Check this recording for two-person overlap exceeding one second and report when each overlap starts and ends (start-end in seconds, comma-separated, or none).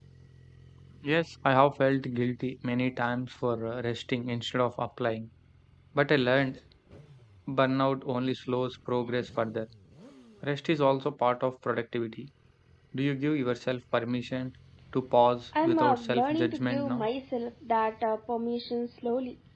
15.6-17.1